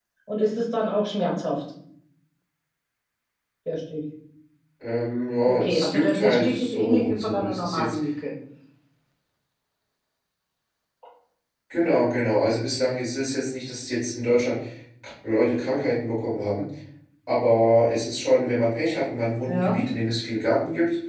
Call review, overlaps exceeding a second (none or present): present